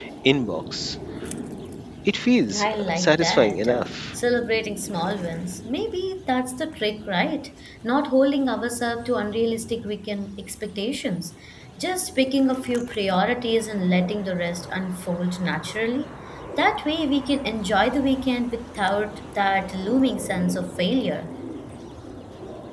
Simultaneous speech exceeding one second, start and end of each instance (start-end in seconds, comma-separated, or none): 2.5-3.9